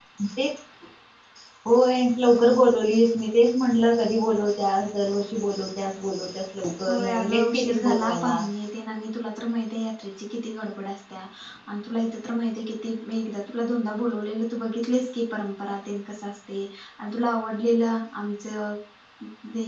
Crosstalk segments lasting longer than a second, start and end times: 6.9-8.4

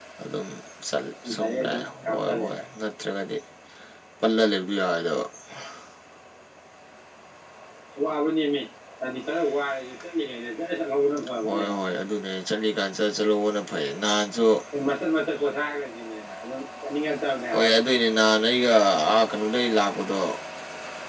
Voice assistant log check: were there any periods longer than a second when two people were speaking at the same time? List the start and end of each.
1.4-2.6

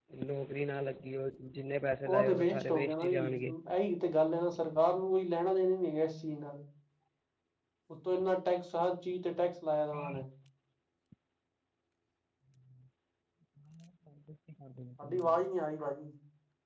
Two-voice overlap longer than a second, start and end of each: 2.0-3.5

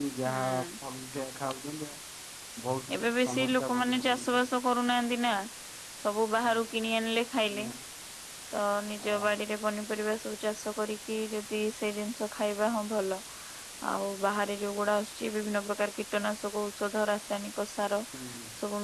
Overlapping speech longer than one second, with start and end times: 3.0-4.2

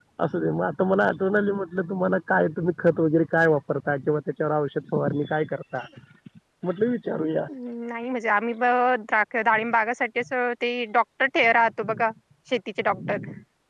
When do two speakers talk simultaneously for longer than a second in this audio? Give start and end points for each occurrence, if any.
none

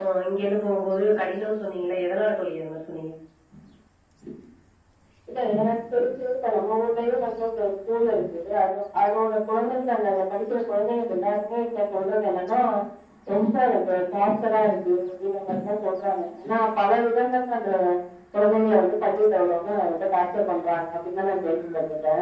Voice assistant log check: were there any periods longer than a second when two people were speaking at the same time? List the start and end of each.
none

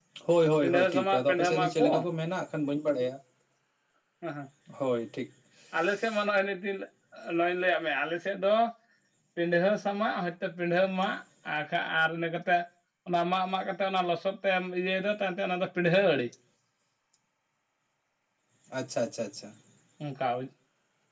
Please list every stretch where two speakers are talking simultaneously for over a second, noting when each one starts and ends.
0.6-1.9

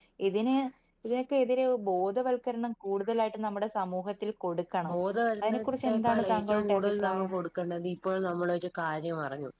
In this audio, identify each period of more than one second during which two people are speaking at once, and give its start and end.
5.4-7.3

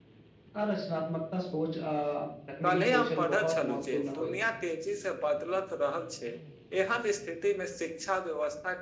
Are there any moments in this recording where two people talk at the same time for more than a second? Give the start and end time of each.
2.6-4.3

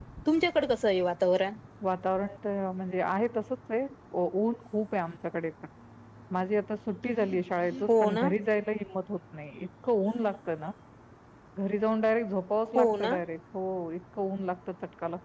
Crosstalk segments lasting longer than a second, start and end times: none

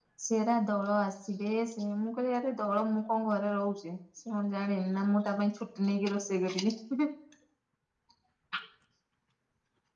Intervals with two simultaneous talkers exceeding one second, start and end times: none

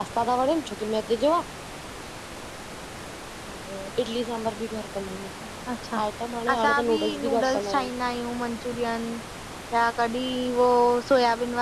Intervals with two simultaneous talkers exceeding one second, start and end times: 6.5-7.9

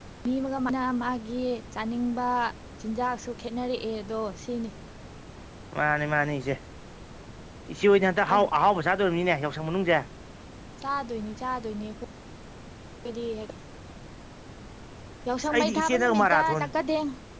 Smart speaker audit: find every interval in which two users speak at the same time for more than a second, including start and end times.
15.4-16.6

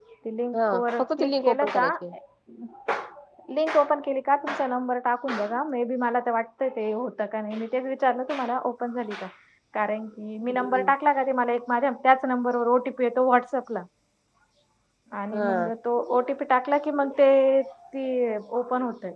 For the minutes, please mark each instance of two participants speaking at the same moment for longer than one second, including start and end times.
0.6-1.9

